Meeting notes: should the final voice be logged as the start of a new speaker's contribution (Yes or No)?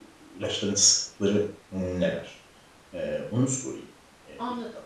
Yes